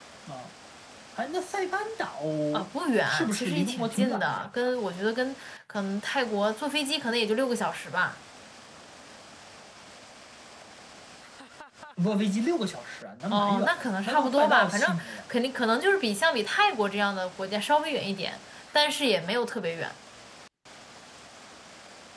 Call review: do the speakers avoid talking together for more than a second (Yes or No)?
No